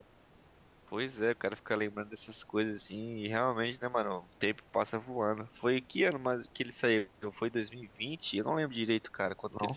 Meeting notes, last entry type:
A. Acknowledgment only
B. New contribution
B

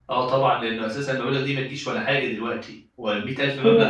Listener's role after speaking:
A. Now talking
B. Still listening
B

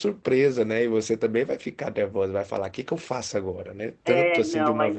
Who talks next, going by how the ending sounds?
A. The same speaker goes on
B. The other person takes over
B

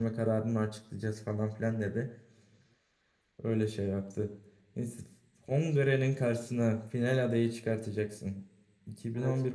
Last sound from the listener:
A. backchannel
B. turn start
A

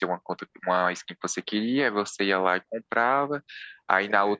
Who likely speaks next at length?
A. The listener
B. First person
B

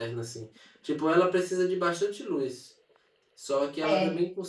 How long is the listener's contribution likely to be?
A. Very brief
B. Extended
A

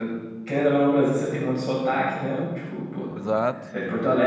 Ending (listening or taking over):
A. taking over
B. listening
B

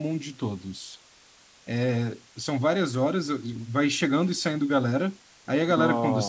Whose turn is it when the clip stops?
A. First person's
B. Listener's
A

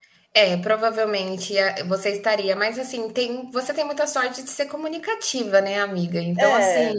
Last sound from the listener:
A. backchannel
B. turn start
A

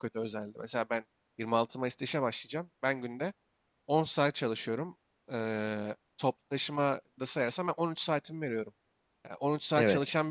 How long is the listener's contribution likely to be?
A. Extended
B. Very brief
B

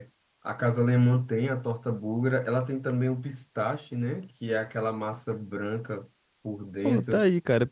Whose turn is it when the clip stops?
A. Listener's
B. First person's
A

